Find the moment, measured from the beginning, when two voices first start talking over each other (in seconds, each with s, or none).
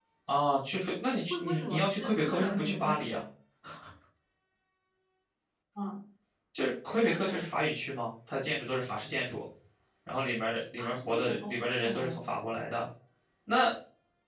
1.2 s